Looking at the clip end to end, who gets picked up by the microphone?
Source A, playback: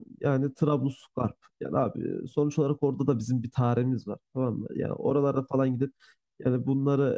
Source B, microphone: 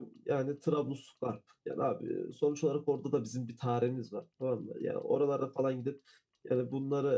echo only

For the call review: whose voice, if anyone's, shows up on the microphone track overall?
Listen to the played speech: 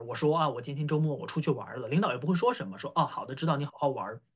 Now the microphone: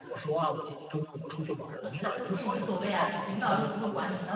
both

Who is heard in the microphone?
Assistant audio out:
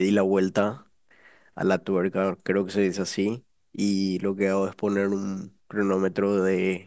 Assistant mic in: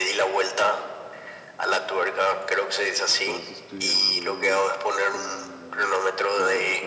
both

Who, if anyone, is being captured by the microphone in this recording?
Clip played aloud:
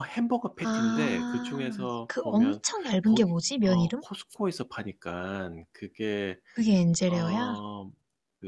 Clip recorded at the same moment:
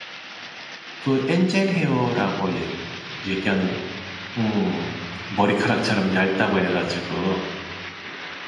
user only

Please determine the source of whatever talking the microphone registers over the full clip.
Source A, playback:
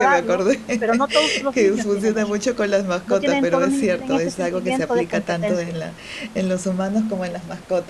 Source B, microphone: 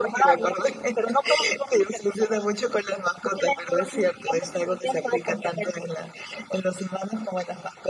echo only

